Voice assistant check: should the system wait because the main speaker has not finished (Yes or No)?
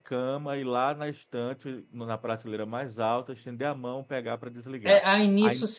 No